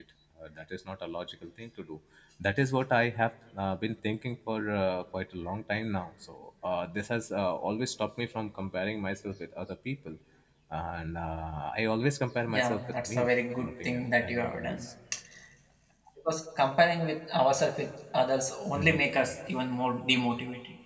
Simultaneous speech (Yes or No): Yes